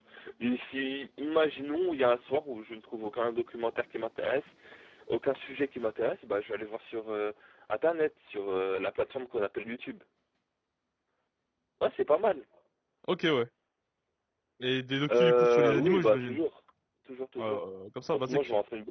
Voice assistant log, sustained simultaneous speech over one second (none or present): present